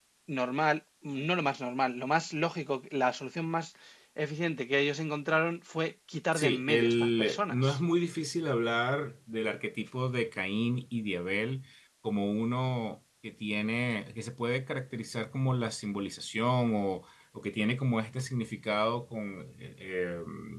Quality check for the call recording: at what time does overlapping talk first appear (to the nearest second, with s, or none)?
6 s